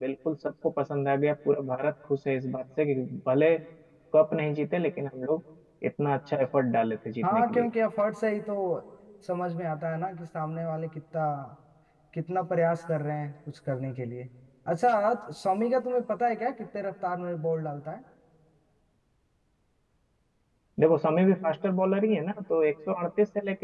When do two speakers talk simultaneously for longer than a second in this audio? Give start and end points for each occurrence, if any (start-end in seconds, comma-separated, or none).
none